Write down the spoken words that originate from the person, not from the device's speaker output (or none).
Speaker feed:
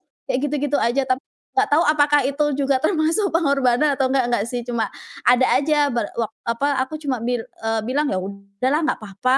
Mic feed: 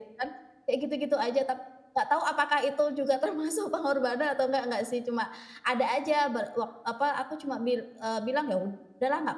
none